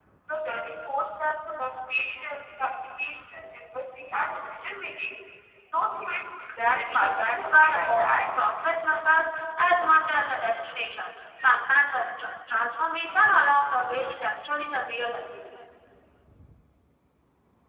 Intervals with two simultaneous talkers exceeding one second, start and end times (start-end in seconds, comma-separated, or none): 6.6-8.1